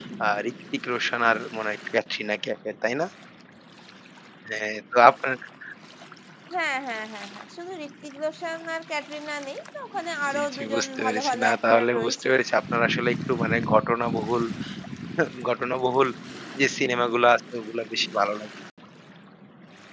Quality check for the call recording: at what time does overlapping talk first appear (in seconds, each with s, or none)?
10.3 s